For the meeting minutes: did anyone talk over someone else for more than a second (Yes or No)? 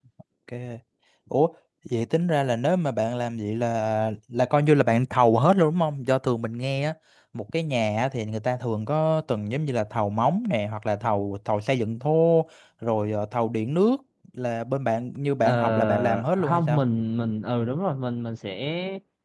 Yes